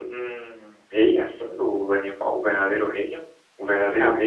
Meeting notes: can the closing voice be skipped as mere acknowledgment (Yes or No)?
No